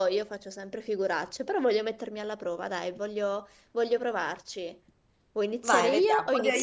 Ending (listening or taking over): taking over